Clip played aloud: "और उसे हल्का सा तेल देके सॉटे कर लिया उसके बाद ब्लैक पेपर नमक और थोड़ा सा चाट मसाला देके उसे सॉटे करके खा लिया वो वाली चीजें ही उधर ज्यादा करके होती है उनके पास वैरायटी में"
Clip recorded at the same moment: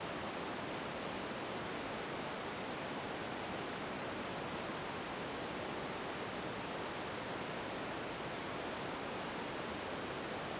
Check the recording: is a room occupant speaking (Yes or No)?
No